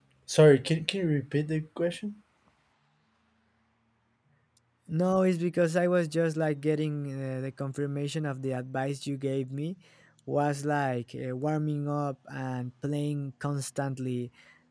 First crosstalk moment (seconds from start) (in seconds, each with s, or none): none